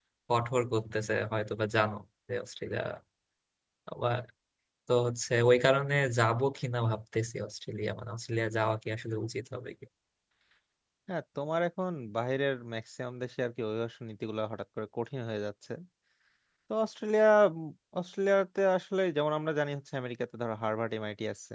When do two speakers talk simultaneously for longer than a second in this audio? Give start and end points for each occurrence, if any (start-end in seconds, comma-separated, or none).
none